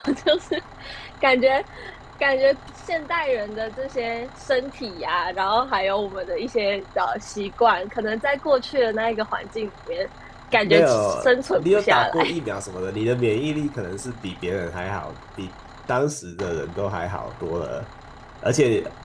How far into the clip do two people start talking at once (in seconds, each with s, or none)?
10.6 s